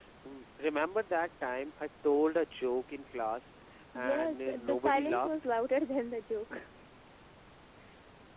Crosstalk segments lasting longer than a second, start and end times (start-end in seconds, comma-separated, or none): 4.0-5.3